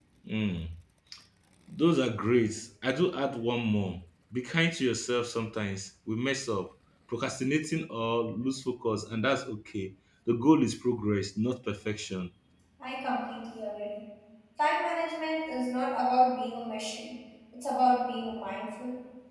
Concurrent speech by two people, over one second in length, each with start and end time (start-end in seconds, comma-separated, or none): none